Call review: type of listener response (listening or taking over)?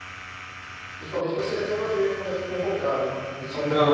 listening